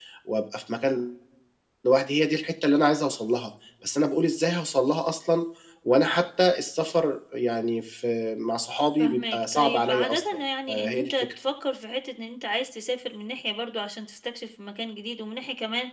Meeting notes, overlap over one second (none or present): present